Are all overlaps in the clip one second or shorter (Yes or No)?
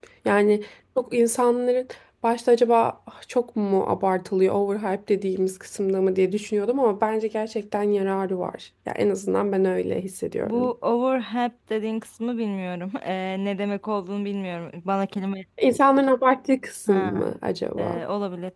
Yes